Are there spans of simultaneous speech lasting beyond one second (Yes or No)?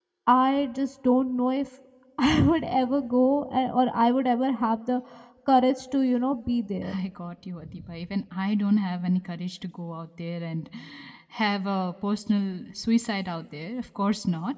No